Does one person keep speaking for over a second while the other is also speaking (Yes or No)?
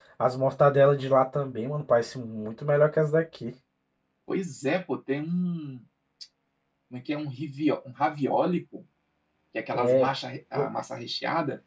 No